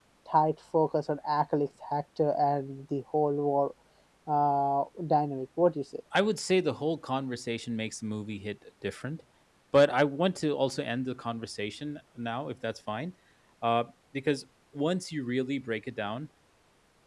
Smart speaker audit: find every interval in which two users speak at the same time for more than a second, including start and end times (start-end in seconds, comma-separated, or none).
none